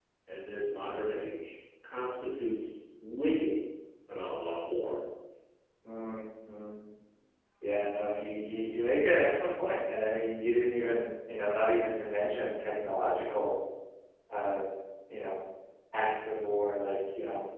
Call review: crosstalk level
none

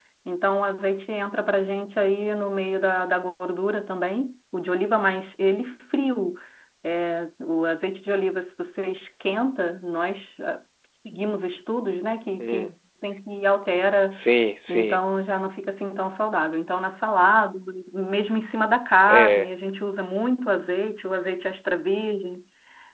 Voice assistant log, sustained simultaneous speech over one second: none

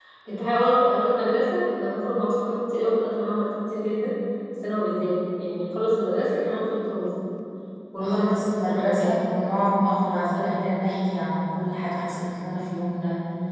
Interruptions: present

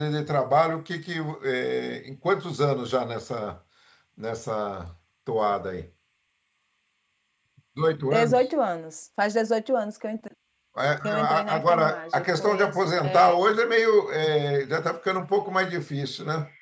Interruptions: present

